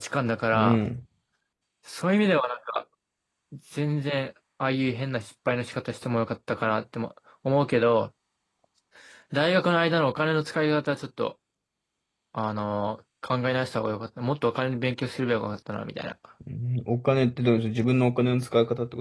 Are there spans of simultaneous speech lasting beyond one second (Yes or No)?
No